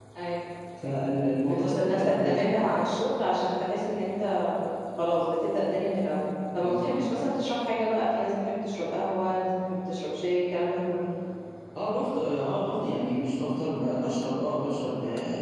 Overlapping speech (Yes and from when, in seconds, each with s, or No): Yes, from 1.0 s